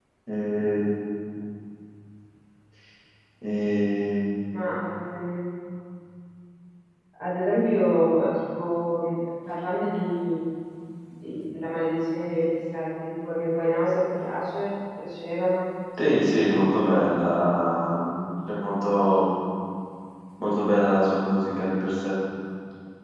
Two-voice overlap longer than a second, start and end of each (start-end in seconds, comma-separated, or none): none